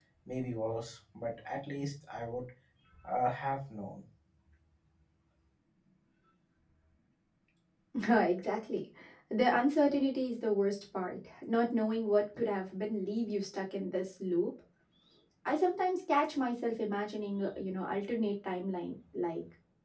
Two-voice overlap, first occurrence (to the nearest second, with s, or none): none